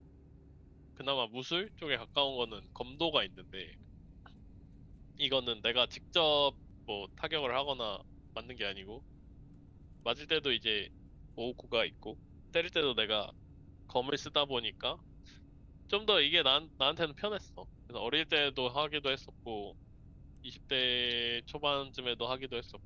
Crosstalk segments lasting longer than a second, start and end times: none

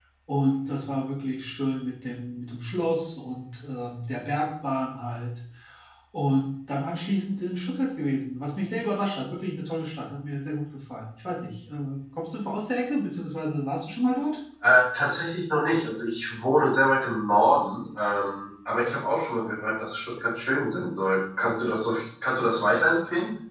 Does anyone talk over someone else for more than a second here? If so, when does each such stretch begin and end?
none

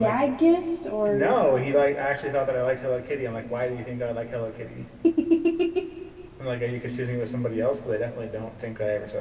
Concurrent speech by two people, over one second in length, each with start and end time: none

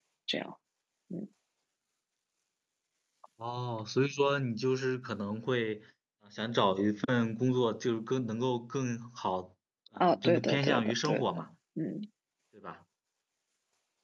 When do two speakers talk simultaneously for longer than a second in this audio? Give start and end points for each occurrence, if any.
10.0-11.3

